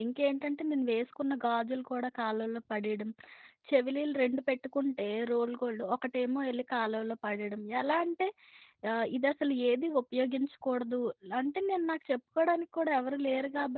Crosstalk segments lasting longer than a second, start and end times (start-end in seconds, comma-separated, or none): none